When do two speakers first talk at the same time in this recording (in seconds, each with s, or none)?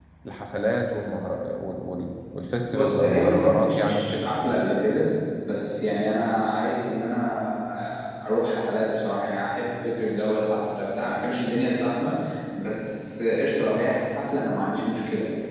2.7 s